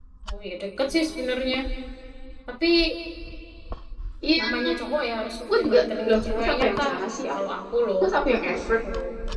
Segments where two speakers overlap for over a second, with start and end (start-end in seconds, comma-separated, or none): 5.5-6.9